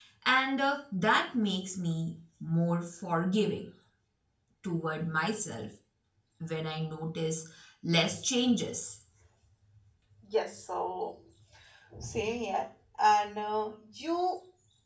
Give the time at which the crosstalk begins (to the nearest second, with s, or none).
none